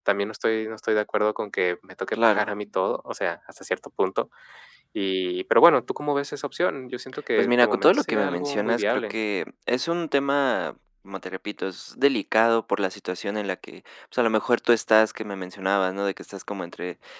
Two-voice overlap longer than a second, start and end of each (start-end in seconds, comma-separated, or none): 7.4-9.2